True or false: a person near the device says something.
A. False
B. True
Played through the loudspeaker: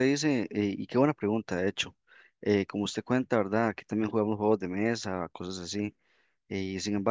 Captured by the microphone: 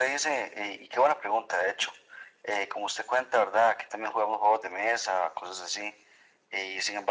A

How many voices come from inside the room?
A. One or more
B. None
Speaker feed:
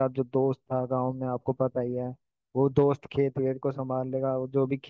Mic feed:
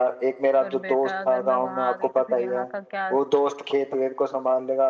A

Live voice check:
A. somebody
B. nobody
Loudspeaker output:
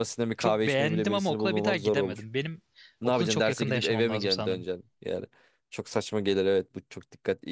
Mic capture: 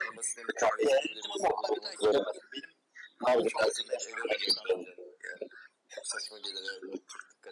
B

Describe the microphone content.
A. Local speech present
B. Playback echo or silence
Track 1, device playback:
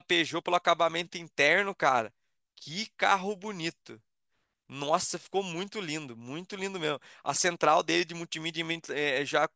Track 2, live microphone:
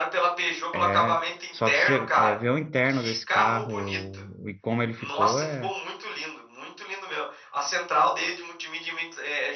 A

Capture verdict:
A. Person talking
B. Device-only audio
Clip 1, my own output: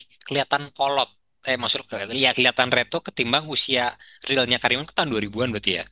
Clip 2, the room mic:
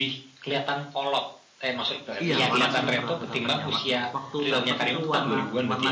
A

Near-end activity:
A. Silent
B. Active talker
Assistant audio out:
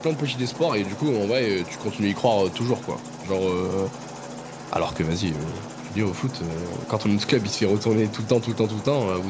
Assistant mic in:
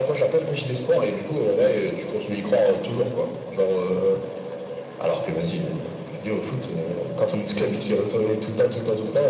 A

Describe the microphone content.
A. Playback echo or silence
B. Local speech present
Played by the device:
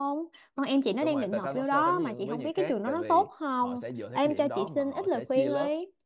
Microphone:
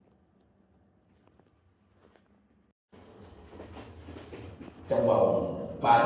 B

